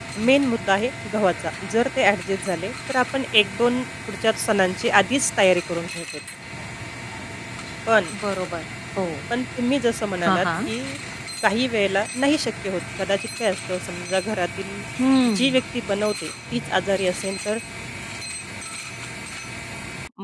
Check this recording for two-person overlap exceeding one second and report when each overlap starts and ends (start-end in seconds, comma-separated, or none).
none